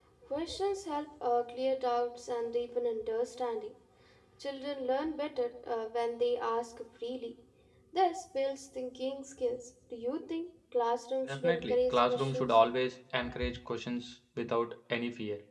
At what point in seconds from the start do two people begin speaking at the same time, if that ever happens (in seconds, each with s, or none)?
11.3 s